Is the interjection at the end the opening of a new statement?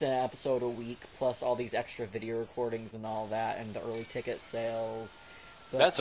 Yes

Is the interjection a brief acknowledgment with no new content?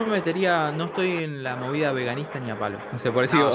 Yes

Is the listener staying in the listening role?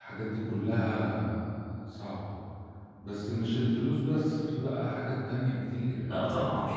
No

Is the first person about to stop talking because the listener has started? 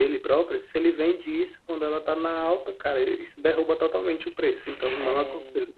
Yes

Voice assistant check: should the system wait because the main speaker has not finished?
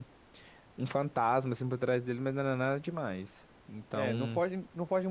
No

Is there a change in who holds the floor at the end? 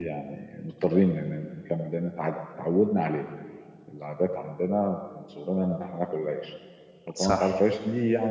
No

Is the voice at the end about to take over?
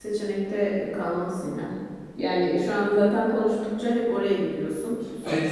Yes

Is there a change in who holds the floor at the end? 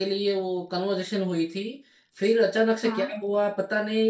No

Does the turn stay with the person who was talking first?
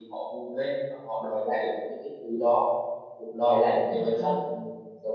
Yes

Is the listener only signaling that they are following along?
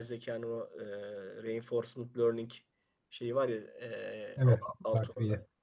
Yes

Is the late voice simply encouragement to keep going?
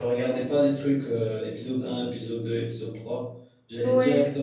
Yes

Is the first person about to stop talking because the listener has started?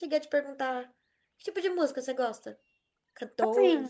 Yes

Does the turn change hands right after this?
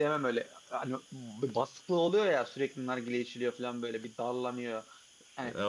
No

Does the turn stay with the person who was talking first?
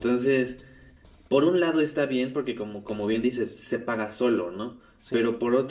Yes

